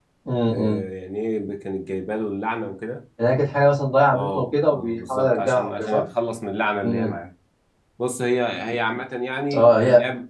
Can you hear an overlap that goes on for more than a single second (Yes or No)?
Yes